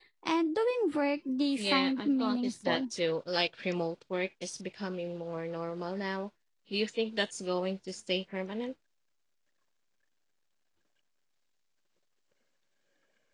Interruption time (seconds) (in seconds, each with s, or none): 1.6 s